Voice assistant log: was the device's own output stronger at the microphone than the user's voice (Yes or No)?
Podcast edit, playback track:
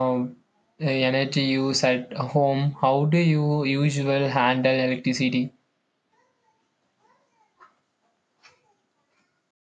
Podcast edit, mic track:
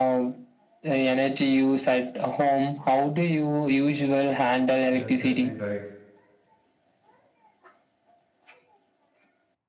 Yes